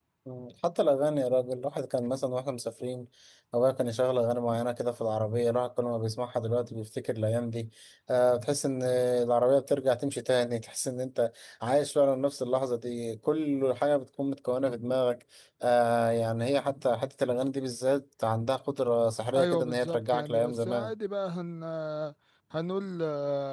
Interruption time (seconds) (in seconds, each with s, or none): 19.3 s